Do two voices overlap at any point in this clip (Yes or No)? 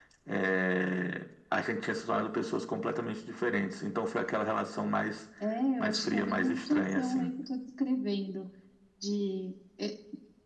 Yes